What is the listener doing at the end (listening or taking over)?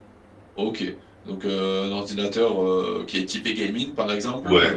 listening